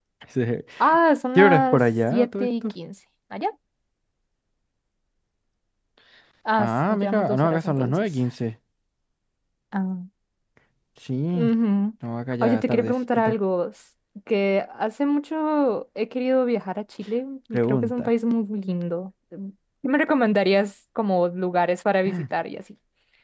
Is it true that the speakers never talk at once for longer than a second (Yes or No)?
No